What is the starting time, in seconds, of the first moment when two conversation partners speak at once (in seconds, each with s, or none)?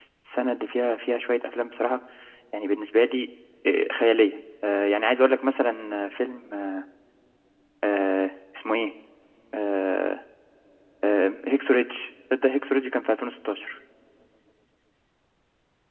none